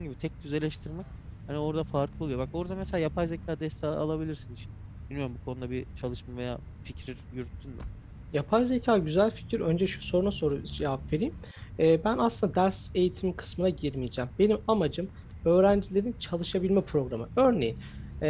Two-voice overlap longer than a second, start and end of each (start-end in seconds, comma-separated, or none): none